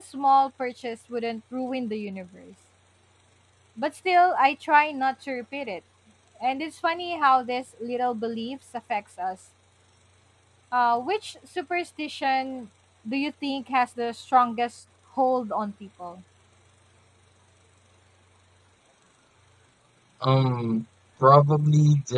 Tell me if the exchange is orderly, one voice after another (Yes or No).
Yes